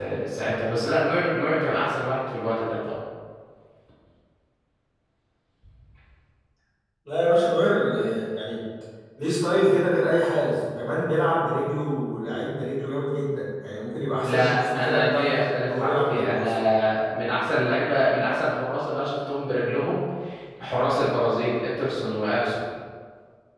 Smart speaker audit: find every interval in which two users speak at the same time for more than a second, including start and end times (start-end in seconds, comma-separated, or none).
14.2-16.5